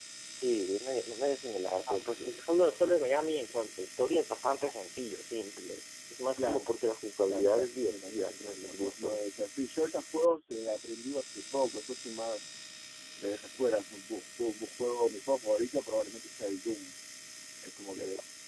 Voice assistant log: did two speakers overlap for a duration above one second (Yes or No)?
Yes